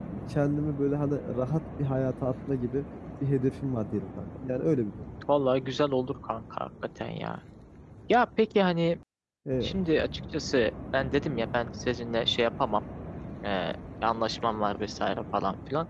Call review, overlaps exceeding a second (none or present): none